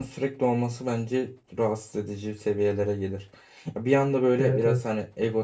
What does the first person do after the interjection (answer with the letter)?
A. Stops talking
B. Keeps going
B